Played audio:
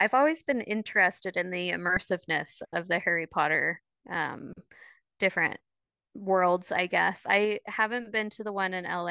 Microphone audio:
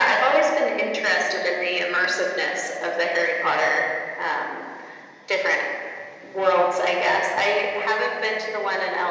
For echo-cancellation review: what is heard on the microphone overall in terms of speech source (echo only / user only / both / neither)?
echo only